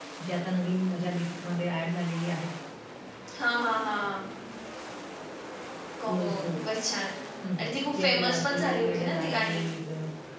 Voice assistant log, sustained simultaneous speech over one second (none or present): present